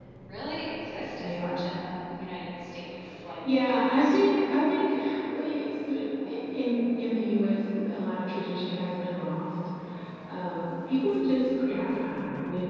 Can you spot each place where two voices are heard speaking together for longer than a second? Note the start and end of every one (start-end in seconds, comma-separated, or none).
3.5-4.9